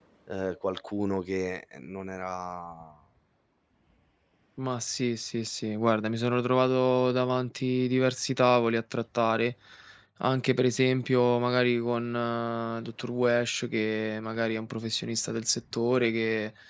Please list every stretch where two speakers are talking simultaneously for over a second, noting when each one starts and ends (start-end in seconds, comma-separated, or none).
none